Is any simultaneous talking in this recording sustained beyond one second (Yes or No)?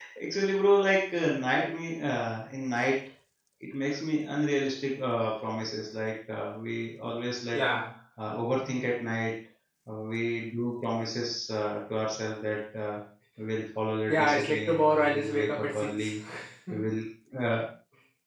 Yes